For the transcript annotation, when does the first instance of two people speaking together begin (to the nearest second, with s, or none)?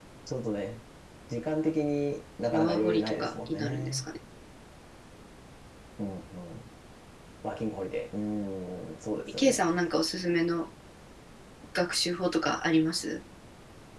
3 s